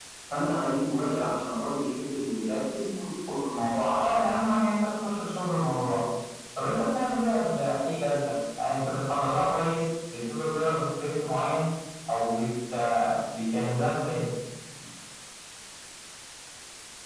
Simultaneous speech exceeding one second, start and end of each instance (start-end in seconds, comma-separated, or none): none